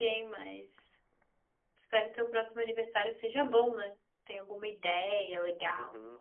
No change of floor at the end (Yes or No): No